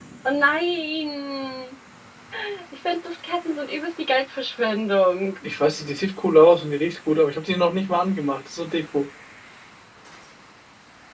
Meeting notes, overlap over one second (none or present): none